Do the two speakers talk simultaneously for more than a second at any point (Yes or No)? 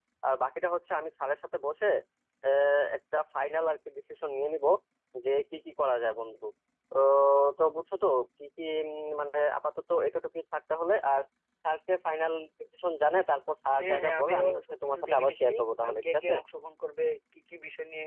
Yes